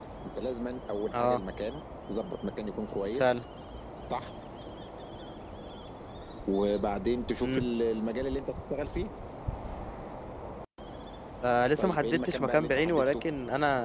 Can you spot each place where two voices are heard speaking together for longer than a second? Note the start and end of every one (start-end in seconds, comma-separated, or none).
11.8-13.2